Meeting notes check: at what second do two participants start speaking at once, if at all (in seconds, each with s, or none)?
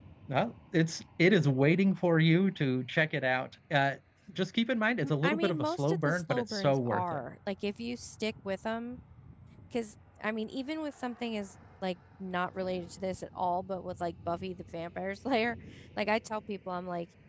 5.0 s